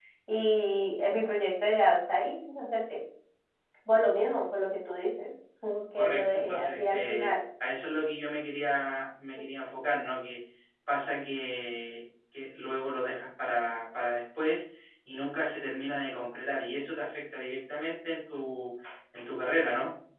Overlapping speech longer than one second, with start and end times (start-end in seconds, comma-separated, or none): 6.0-7.3